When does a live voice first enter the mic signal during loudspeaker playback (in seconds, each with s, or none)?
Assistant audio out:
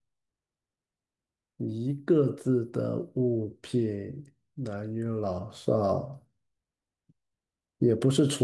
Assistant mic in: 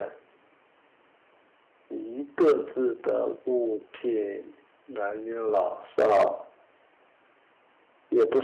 none